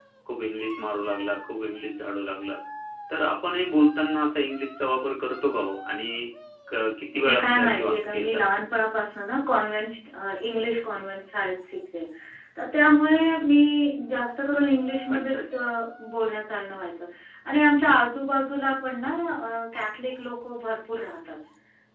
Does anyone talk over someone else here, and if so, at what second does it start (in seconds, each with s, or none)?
7.1 s